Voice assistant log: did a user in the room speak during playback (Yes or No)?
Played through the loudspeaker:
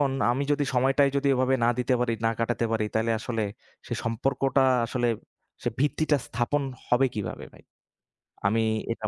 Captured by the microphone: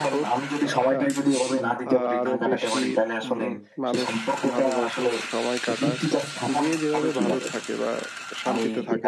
Yes